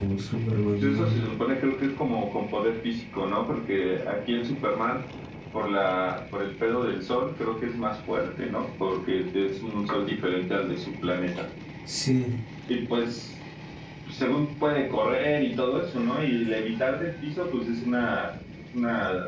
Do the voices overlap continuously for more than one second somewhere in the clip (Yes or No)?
No